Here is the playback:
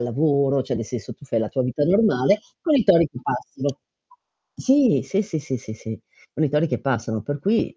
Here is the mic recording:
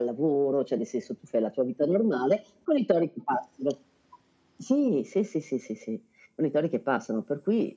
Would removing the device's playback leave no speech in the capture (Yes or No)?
Yes